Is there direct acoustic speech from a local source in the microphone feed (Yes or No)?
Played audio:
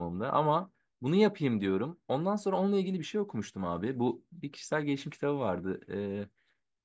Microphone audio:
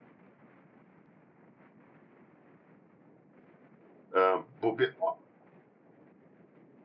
Yes